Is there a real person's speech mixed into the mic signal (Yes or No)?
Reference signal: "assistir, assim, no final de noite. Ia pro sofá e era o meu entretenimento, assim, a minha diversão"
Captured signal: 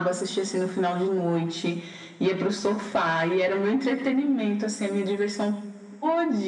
No